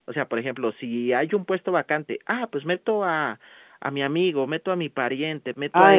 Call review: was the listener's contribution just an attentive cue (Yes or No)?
No